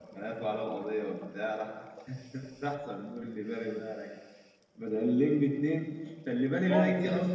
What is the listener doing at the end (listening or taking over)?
listening